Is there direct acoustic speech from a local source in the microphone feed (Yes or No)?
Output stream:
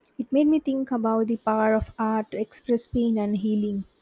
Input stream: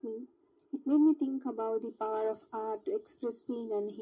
No